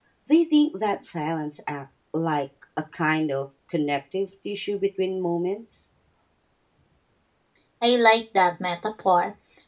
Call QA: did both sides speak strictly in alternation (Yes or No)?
Yes